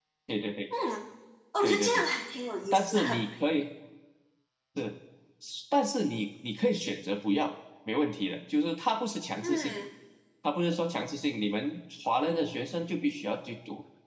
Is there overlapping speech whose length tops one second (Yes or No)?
No